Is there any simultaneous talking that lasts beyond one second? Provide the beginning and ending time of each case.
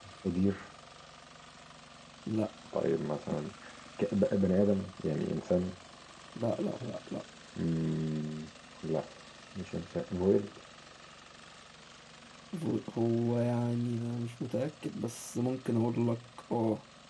none

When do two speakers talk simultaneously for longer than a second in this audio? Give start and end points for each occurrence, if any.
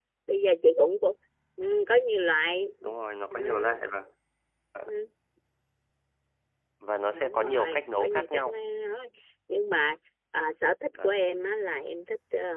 7.1-8.6

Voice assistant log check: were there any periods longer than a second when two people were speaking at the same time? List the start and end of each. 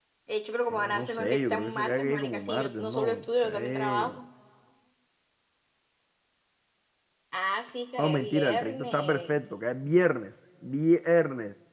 0.7-4.2, 8.0-9.4

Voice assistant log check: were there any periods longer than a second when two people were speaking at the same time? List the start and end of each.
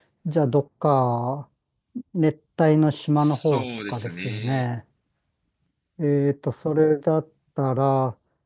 3.2-4.6

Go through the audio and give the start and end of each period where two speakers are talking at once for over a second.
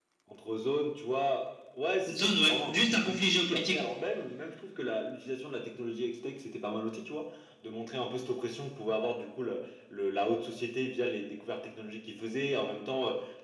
2.1-3.8

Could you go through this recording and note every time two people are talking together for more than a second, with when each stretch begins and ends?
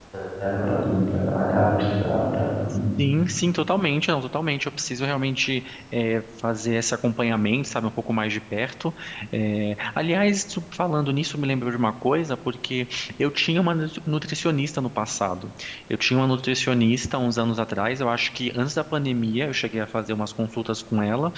none

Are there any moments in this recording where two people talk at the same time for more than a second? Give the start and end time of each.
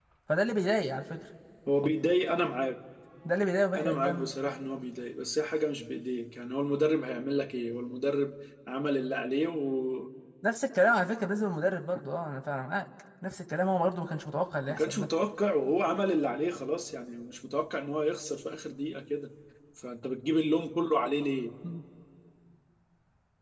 none

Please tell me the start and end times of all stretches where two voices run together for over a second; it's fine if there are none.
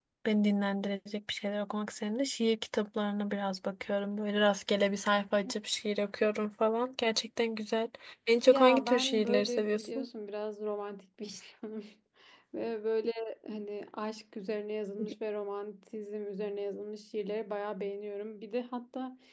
8.5-10.1

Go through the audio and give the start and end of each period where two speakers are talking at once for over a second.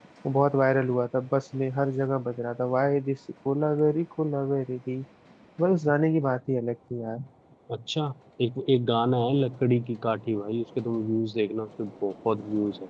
none

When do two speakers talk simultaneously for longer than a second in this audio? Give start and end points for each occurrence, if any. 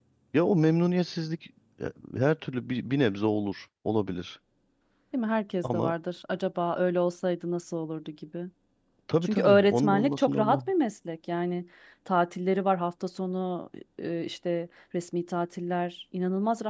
9.2-10.6

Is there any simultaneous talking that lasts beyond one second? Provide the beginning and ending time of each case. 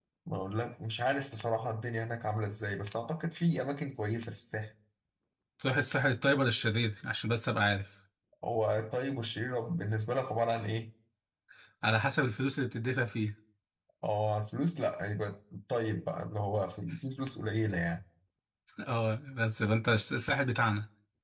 none

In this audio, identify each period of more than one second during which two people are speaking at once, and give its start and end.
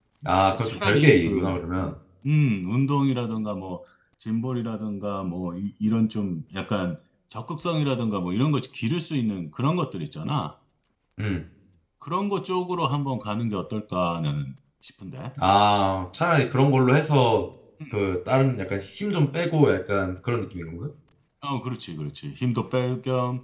0.5-1.9

